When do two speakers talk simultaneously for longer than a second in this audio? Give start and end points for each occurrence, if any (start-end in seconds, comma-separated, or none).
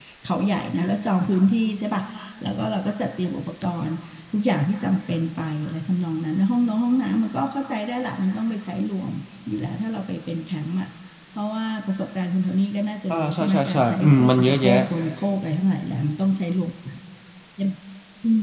13.1-14.7